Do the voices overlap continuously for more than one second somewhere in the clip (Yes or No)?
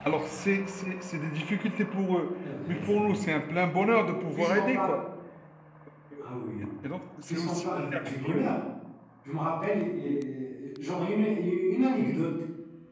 Yes